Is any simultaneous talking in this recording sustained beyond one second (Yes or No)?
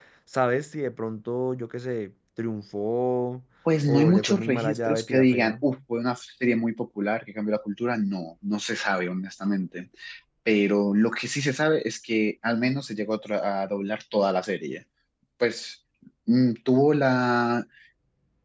Yes